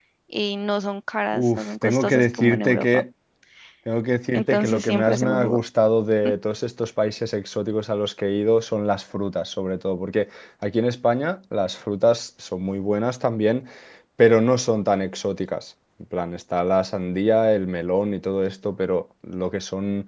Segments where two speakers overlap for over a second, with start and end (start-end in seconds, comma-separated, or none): 1.4-3.0, 4.3-5.6